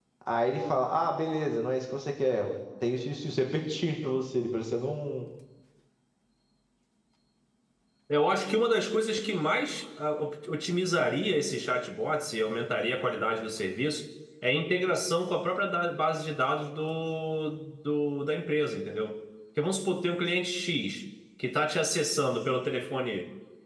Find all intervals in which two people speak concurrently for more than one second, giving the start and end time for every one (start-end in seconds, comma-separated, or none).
none